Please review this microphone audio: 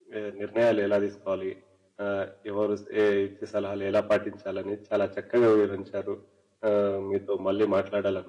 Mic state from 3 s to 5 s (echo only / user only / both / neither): user only